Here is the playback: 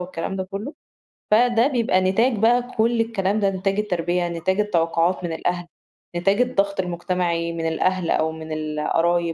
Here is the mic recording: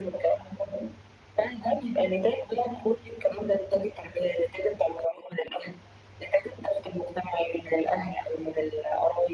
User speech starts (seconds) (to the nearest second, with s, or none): none